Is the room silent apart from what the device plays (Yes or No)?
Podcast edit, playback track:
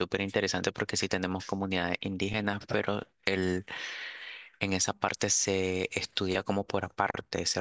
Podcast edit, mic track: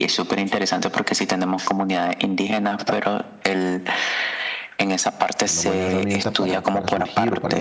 No